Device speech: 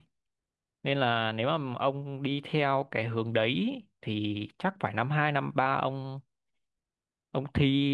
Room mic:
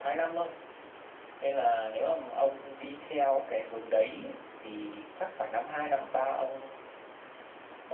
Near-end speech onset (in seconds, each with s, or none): none